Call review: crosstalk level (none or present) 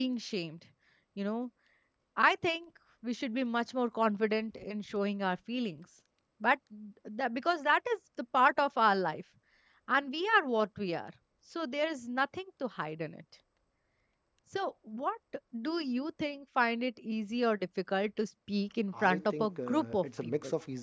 present